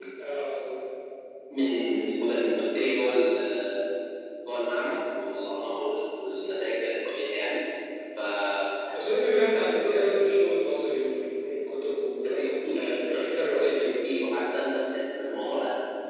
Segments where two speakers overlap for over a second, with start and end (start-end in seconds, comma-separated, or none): none